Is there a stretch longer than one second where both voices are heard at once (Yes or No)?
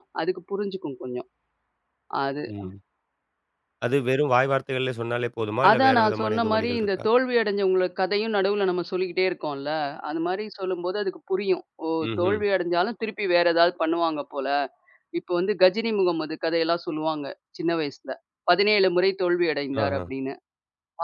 Yes